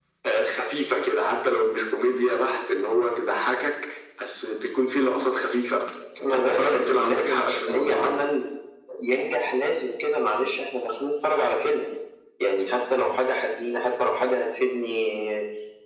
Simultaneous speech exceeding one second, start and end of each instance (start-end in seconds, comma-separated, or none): 6.3-8.1